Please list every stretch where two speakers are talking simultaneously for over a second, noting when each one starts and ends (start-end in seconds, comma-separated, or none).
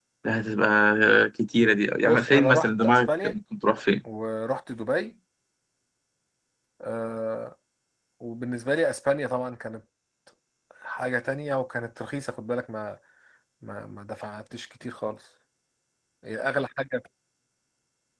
2.0-3.3